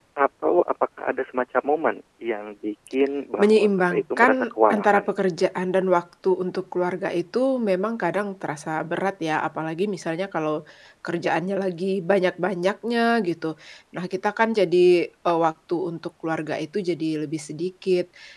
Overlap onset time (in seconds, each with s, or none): 3.4 s